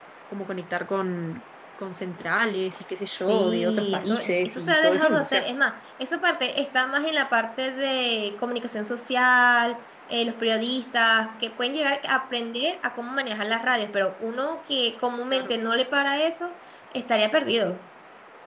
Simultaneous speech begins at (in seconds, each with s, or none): 3.2 s